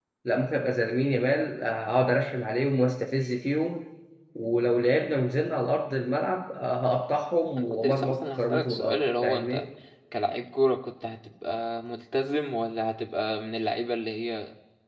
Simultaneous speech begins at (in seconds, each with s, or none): 7.6 s